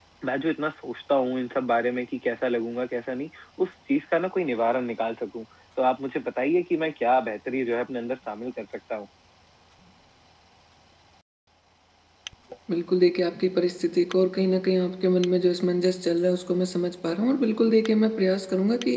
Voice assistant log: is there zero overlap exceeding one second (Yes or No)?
Yes